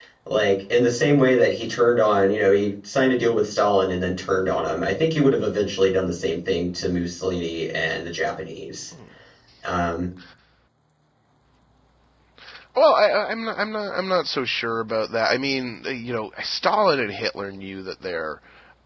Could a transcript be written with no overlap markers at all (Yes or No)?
Yes